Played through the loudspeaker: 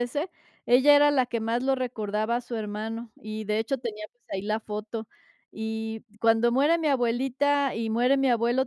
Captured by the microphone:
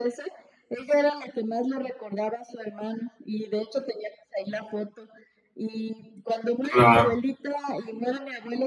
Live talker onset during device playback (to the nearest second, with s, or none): 7 s